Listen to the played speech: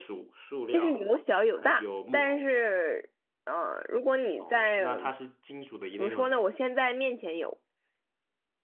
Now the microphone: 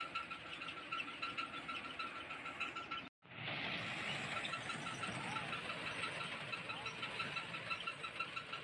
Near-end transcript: none

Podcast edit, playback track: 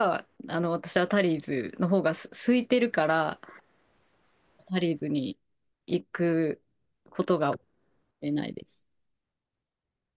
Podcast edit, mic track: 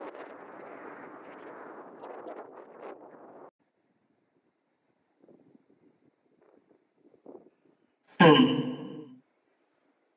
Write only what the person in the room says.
うん。

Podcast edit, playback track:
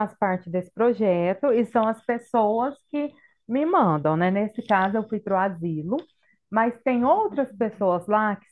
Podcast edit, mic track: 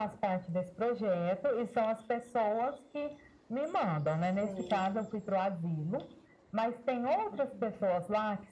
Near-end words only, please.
sim.

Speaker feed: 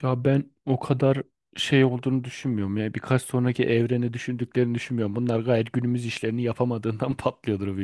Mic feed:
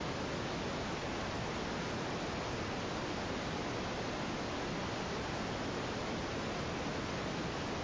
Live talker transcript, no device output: none

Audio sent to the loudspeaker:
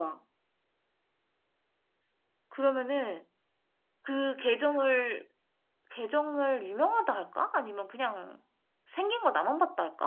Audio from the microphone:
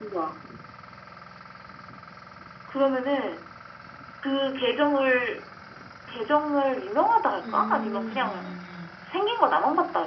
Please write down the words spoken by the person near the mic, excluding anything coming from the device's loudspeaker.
음, 음,

